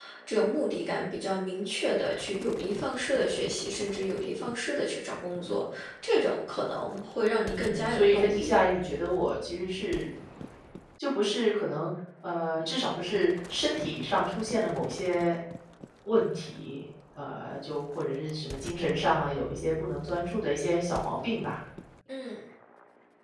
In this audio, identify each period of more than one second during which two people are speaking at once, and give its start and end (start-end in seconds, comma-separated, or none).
7.4-8.6